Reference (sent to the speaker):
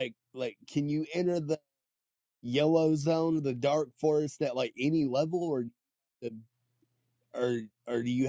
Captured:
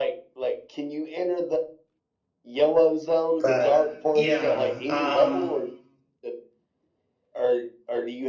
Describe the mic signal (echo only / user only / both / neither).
both